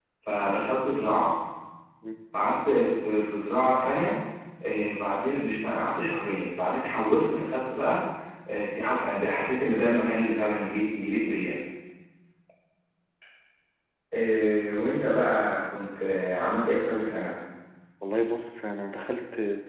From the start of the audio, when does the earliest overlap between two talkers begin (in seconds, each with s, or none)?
none